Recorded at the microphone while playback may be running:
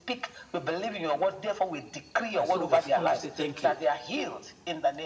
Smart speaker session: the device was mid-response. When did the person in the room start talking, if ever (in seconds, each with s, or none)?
2.3 s